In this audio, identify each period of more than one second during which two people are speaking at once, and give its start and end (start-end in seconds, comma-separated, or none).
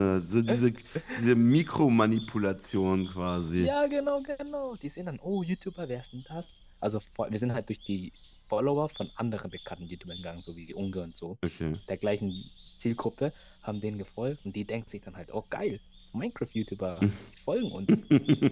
none